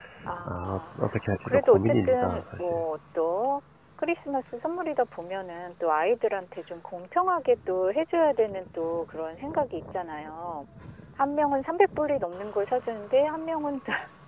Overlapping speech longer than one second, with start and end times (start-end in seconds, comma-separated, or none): 1.4-2.8